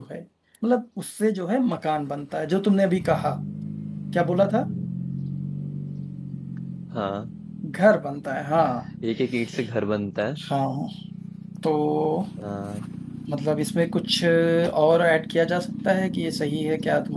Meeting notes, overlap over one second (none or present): none